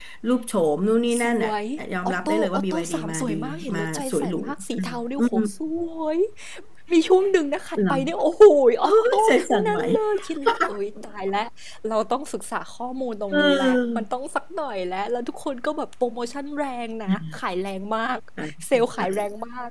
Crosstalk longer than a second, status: present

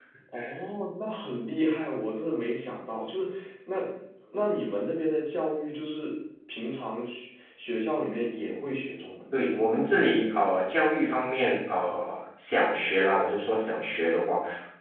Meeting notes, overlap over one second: none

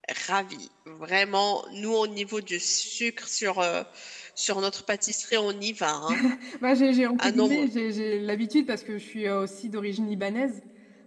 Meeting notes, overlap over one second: none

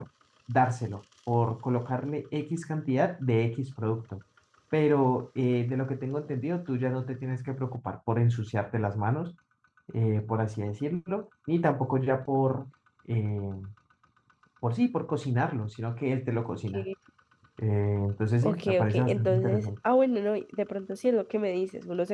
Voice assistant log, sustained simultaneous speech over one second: present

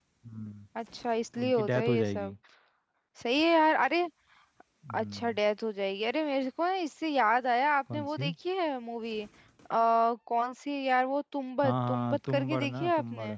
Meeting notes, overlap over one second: present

